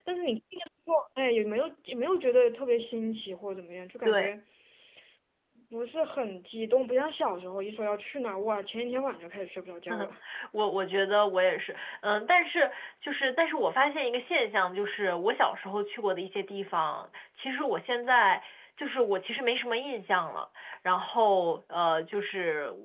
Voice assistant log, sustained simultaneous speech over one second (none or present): none